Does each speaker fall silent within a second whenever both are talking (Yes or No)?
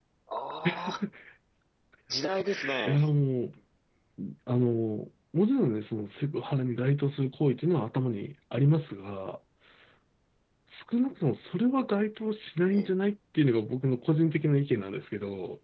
Yes